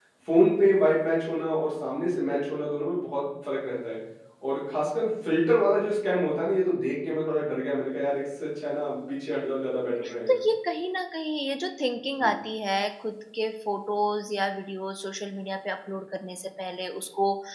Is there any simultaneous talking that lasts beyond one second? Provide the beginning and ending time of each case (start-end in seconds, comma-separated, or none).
none